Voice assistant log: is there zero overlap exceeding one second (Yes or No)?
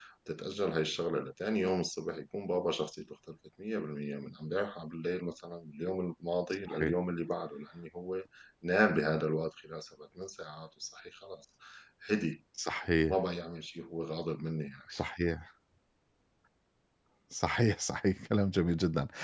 Yes